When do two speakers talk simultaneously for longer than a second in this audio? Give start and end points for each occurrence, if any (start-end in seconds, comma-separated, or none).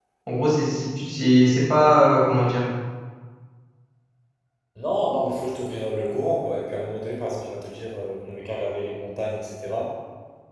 none